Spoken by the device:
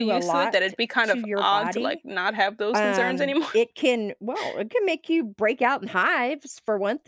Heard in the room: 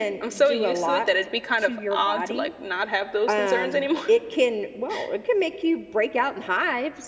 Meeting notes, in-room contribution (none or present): none